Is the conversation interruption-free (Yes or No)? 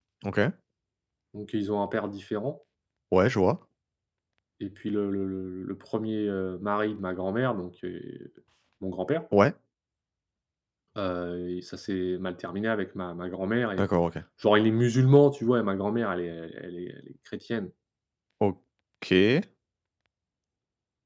Yes